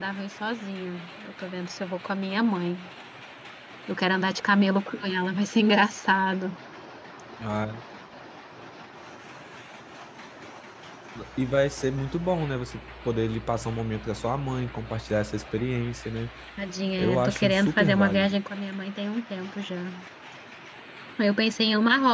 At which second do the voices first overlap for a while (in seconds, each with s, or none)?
17.0 s